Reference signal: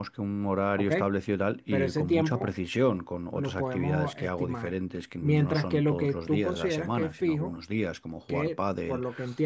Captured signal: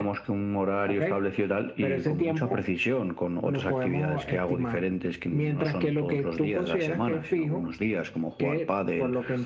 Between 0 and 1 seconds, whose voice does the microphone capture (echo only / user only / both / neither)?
echo only